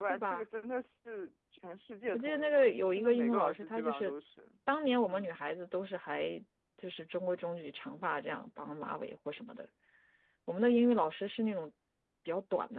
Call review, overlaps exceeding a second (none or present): present